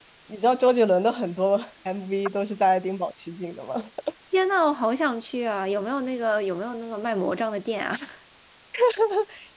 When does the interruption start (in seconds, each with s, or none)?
none